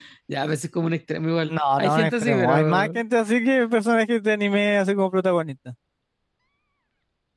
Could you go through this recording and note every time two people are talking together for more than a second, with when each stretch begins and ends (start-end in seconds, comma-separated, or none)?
1.5-2.9